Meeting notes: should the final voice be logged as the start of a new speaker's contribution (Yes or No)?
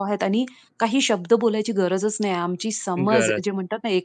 No